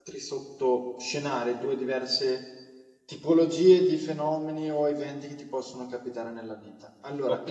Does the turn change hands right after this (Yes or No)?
No